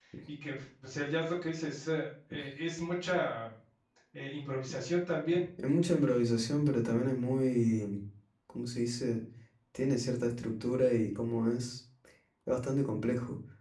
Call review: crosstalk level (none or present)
none